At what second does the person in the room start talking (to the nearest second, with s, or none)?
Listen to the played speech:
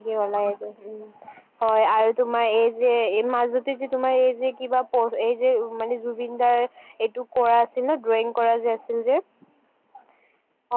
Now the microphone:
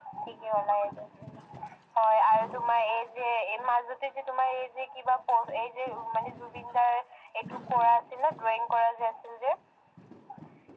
none